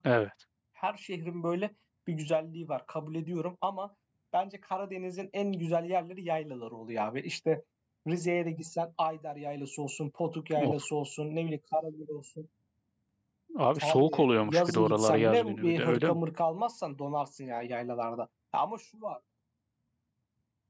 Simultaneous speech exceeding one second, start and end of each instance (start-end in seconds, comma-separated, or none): 13.8-16.2